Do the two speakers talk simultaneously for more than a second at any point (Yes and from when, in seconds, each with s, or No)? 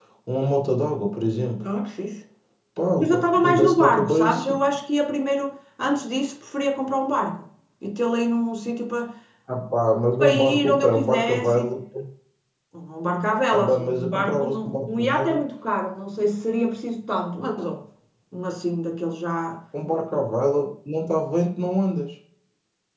Yes, from 3.0 s